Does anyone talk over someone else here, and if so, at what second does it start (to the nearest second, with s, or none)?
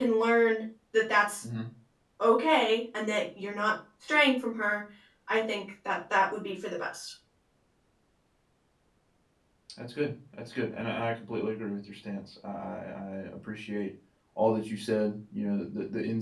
none